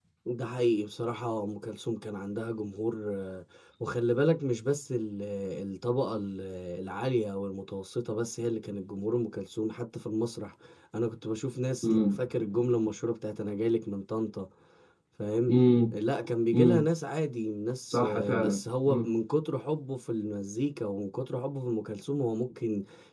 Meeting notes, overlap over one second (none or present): present